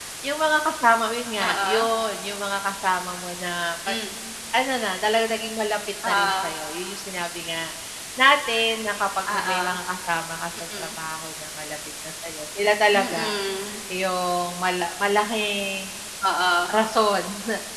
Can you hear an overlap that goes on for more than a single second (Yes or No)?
No